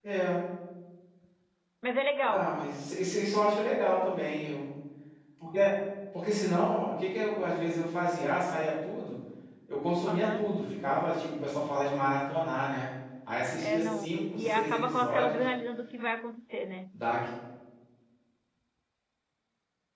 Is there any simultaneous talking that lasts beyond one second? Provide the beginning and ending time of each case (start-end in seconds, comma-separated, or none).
13.6-15.5